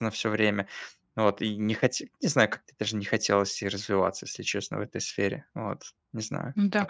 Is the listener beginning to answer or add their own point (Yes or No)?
Yes